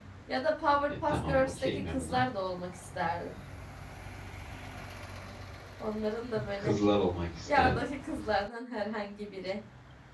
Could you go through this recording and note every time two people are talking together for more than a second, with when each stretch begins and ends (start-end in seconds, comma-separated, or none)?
0.9-2.2